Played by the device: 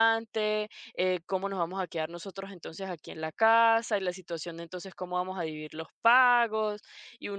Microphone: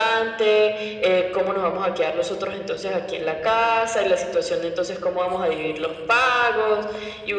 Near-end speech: none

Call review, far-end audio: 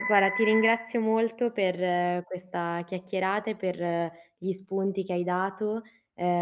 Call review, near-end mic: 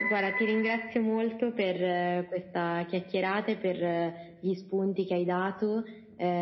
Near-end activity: none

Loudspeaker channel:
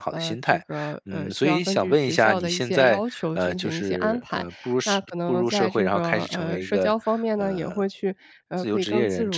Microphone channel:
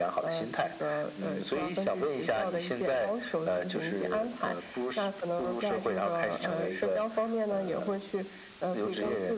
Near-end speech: none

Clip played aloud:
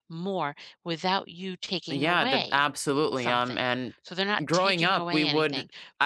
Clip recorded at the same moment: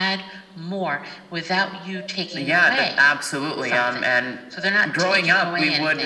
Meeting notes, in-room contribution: none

